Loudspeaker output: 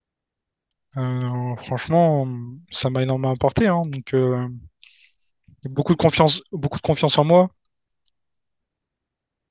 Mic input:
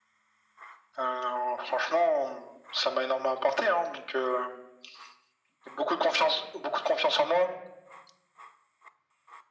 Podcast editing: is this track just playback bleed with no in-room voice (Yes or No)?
Yes